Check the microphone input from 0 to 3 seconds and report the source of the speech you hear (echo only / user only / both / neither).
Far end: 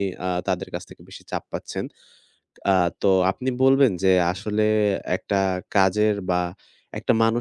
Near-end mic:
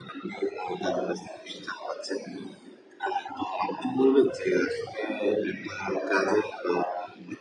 echo only